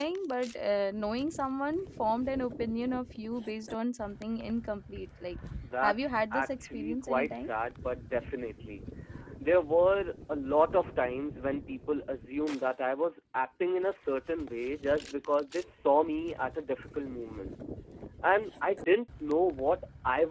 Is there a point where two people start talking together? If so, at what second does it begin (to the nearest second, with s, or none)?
6 s